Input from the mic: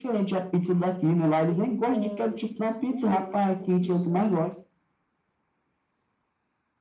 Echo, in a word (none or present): present